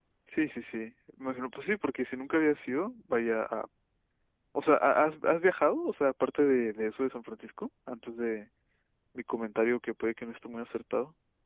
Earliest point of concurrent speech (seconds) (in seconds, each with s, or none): none